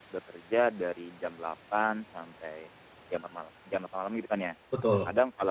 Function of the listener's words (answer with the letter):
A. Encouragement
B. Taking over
A